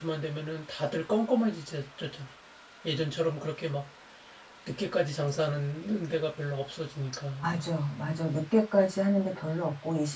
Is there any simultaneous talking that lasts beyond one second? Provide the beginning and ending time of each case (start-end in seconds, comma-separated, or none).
none